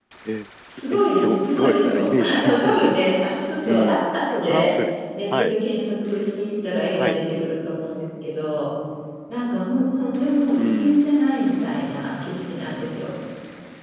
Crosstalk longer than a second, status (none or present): present